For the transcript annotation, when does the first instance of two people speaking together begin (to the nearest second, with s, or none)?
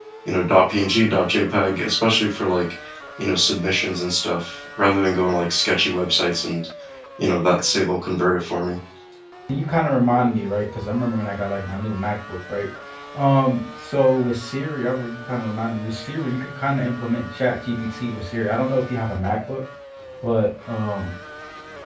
none